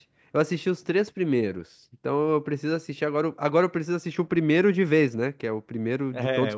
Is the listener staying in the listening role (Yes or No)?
No